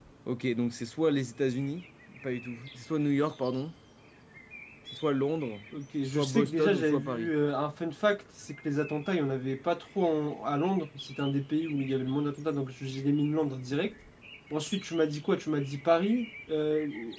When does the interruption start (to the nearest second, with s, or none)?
6 s